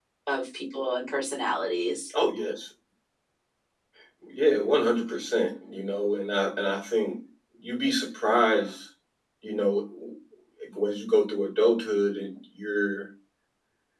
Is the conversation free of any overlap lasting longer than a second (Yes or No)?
Yes